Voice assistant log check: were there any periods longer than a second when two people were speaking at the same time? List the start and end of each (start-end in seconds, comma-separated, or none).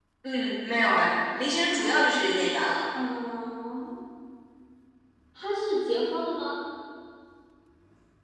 none